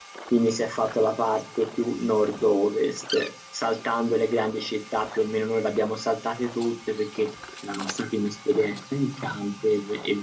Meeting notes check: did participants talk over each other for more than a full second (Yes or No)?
No